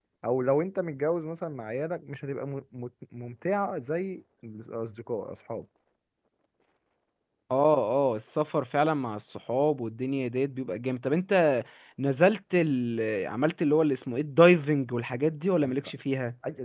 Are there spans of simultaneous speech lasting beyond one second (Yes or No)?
No